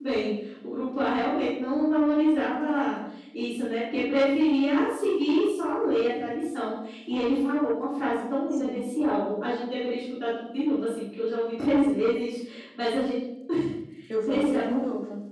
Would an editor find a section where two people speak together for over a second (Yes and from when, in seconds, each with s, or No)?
No